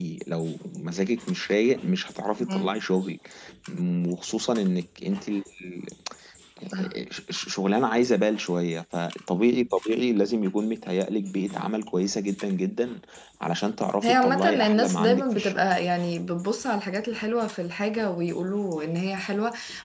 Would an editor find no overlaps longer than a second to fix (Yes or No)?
No